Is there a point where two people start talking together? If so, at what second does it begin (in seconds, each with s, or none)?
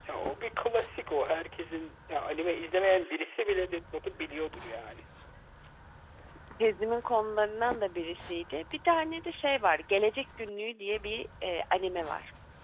none